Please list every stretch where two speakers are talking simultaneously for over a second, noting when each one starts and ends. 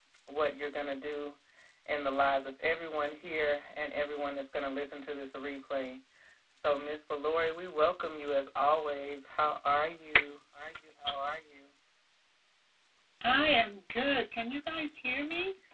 none

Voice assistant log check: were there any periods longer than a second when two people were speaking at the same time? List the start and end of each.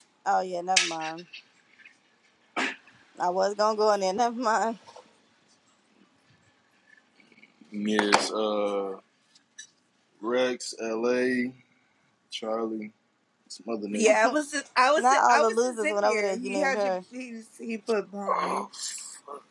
15.0-16.9

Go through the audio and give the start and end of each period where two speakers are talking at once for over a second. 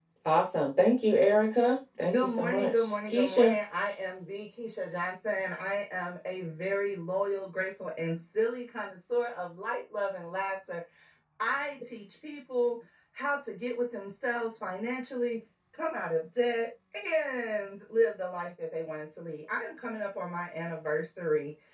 2.1-3.5

